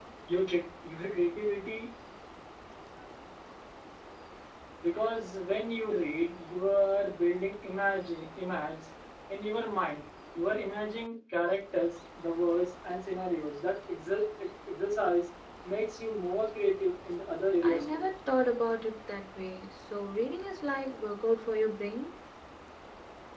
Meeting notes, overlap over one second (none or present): none